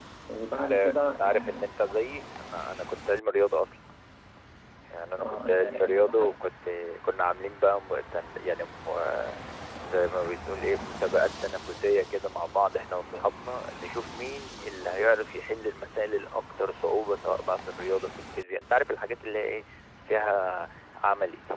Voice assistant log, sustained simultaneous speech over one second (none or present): present